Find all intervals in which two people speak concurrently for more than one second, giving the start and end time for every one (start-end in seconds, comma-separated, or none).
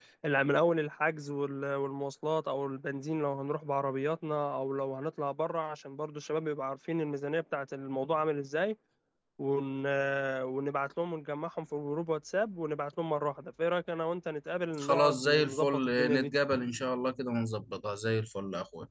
14.8-16.3